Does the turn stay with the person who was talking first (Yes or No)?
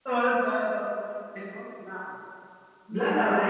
No